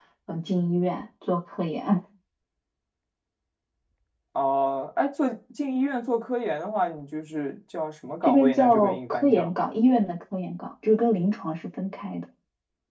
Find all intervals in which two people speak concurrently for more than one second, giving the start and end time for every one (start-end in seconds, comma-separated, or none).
8.2-9.5